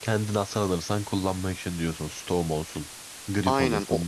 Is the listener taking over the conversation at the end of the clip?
Yes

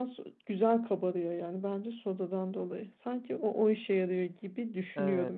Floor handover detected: Yes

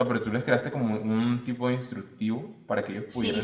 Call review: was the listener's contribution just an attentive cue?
No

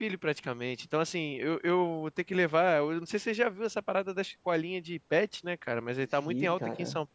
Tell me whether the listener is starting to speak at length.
No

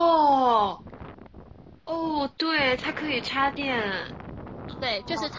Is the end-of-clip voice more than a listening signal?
Yes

